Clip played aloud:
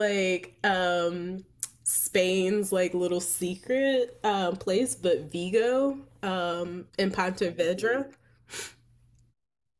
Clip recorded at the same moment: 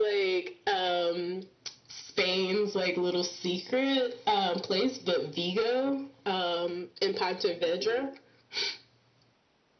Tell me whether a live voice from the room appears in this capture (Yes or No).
No